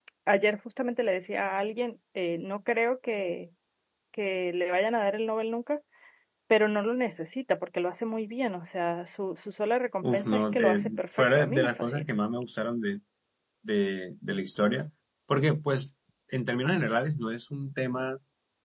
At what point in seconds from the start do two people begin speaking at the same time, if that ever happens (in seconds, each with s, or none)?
10.0 s